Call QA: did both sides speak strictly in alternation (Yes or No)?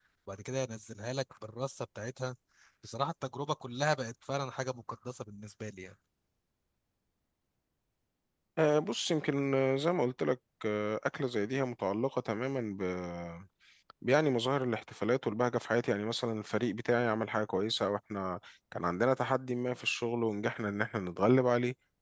Yes